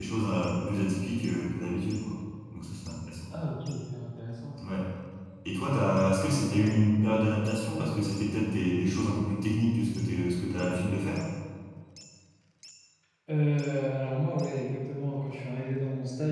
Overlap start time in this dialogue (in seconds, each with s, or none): none